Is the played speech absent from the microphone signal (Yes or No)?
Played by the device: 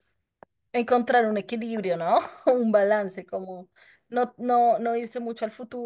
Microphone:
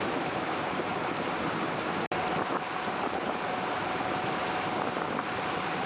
Yes